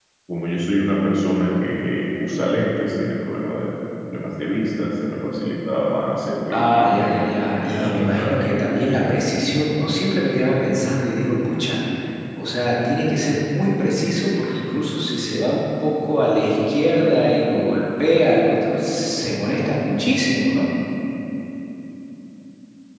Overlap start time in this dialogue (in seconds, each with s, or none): 6.5 s